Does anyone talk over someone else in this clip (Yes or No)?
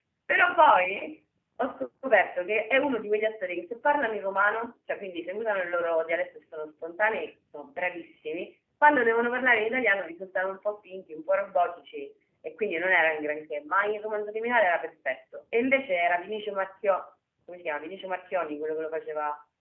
No